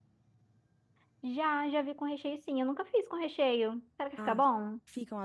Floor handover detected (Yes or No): Yes